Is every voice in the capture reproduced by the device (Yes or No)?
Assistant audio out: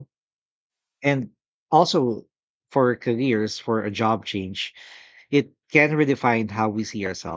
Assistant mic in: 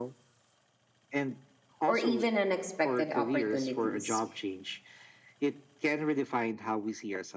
No